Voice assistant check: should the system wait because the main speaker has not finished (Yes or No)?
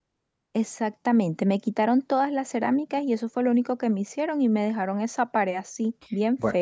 No